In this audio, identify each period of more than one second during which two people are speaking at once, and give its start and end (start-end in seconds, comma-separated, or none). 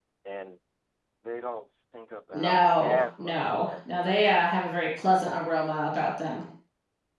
2.3-4.4